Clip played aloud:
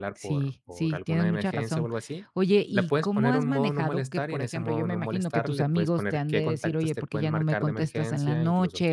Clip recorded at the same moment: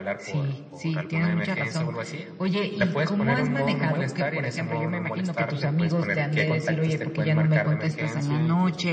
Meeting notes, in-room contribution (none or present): none